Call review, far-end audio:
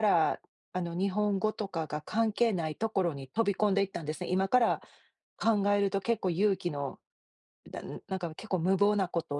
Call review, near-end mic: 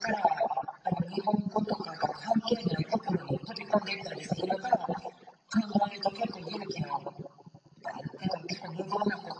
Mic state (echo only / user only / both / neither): echo only